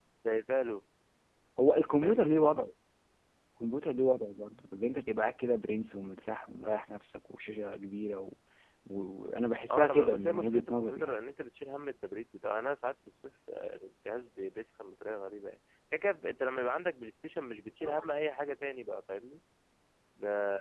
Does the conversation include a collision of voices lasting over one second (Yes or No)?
Yes